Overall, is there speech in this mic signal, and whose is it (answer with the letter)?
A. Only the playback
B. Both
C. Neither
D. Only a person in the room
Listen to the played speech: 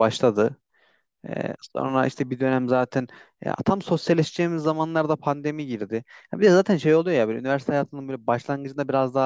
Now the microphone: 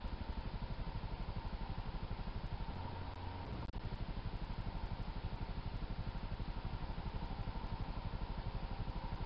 C